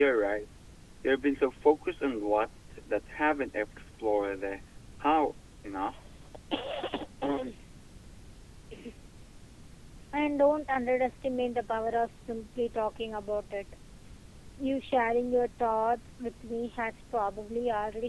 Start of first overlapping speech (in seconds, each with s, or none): none